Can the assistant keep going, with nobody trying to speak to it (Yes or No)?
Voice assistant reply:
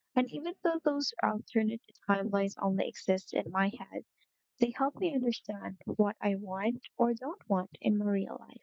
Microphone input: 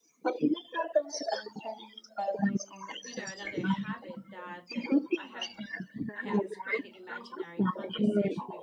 No